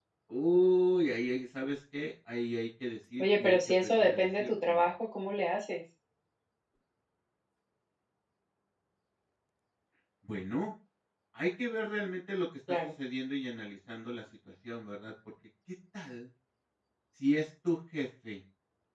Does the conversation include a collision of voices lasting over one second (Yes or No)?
Yes